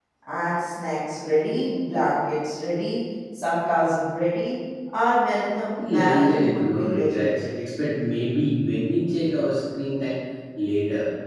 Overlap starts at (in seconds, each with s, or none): 5.8 s